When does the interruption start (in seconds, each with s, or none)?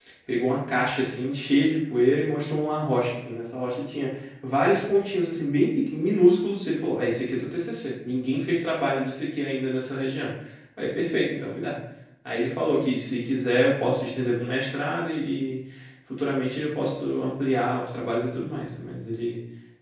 none